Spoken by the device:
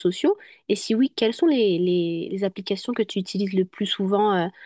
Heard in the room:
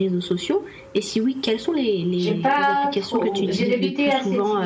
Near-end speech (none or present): present